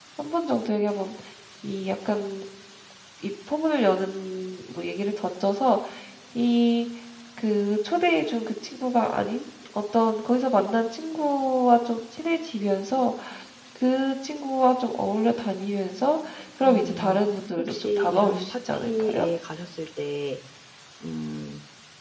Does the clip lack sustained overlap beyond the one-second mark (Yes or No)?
No